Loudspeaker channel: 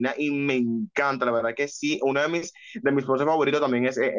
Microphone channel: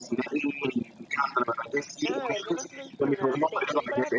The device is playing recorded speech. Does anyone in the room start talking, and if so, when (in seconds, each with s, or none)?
2.0 s